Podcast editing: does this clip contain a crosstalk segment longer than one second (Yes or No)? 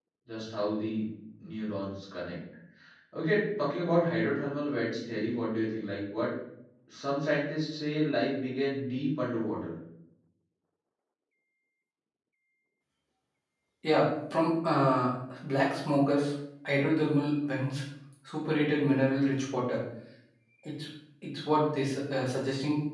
No